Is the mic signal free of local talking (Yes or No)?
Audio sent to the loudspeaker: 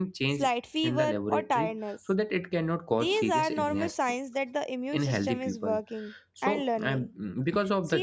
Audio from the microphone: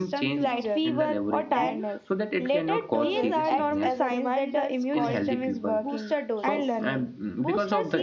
No